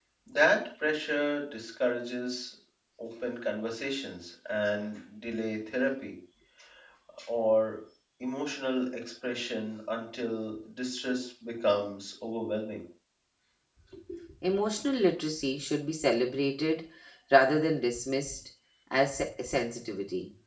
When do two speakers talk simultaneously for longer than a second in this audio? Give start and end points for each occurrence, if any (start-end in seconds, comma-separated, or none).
none